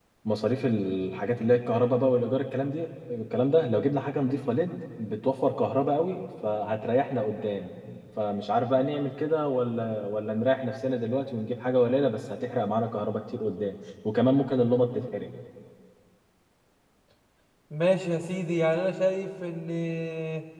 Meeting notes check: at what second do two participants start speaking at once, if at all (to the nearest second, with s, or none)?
none